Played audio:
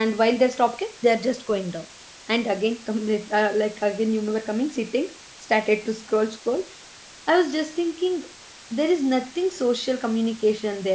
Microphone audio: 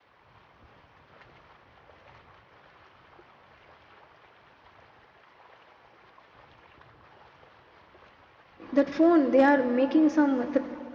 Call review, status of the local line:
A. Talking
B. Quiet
A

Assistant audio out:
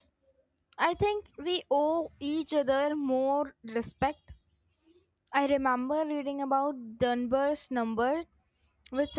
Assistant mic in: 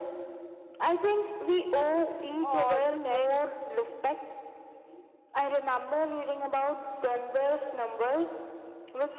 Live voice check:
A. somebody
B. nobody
A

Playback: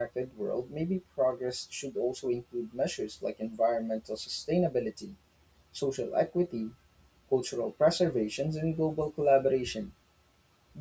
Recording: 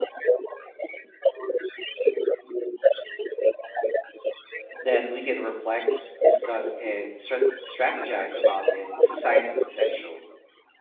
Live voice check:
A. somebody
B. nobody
A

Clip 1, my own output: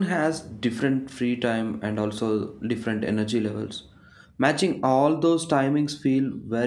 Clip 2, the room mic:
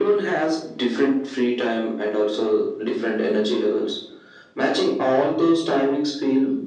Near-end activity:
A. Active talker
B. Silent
B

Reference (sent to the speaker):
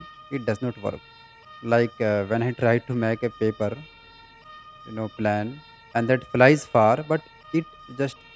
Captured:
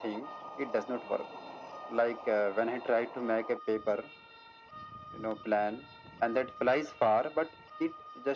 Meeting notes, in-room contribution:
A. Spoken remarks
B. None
B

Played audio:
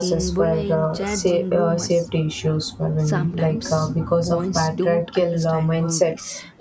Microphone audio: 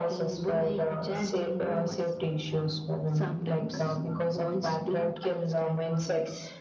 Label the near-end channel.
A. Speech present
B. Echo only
B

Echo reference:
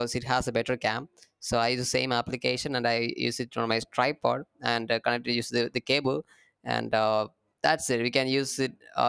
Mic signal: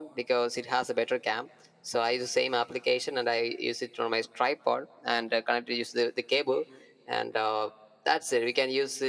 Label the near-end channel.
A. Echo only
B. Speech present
A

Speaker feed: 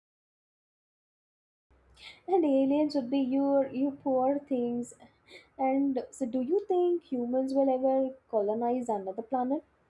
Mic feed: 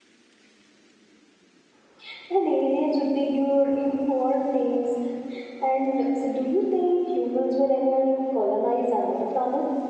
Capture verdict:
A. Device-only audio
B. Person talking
A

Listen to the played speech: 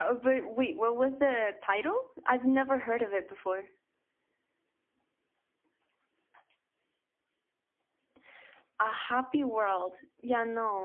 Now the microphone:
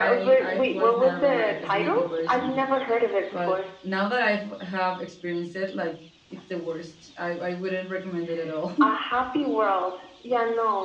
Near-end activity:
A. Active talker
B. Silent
A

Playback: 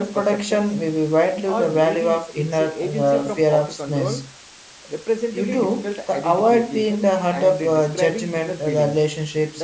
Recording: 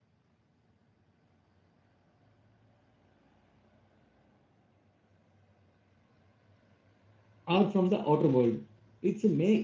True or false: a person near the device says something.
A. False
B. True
B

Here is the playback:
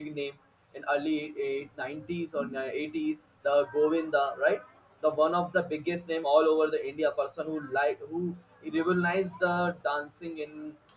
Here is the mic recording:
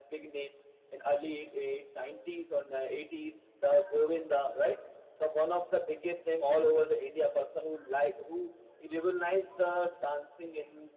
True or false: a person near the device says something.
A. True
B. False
B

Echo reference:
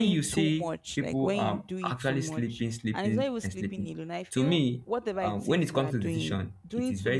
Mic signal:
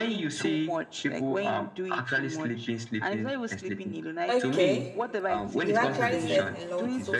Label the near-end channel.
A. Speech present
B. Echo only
A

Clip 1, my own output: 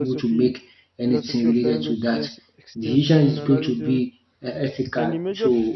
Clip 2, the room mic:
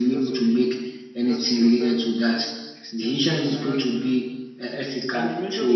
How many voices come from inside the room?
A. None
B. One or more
A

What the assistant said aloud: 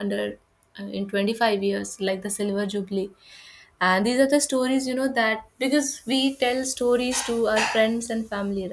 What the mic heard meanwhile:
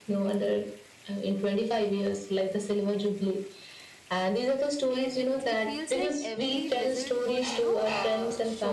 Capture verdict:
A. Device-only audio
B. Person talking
B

